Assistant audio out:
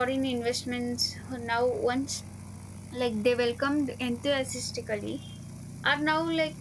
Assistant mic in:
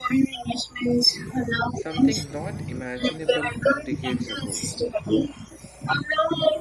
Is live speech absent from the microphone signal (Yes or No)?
No